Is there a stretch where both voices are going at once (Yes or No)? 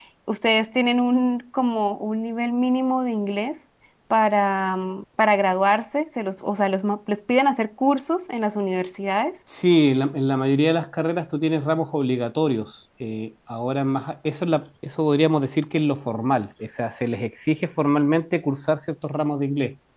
No